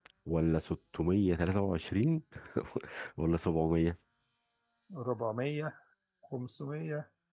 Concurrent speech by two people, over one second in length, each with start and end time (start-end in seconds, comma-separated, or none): none